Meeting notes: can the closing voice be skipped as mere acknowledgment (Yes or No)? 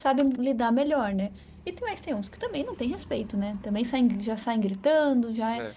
Yes